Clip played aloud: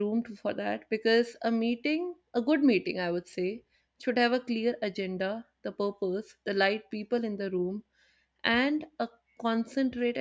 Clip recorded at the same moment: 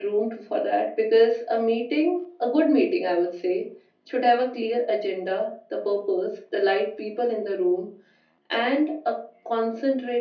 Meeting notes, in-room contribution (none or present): none